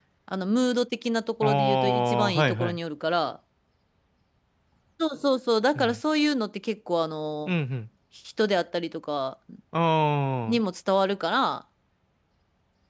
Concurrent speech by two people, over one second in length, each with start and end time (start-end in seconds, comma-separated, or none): 1.4-2.8